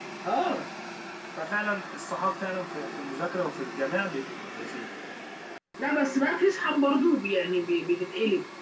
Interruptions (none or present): none